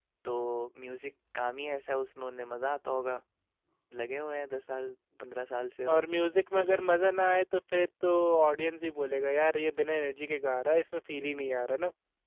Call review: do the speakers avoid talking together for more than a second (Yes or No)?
Yes